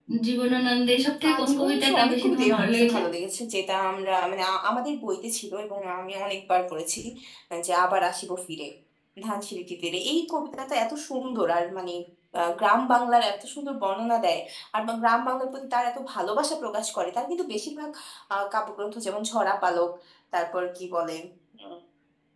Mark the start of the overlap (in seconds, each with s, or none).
1.2 s